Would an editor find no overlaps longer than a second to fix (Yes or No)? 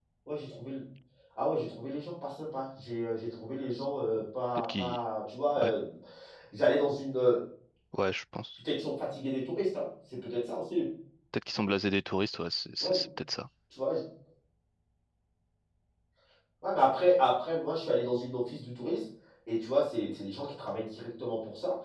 Yes